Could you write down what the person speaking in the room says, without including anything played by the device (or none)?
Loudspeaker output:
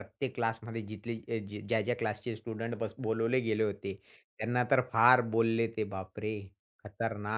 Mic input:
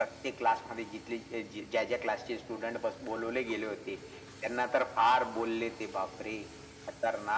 none